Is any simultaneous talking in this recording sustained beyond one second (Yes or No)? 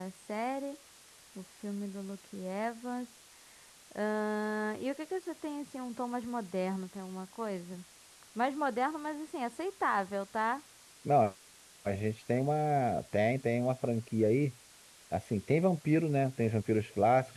No